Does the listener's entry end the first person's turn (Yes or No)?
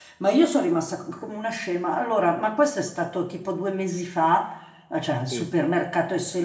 No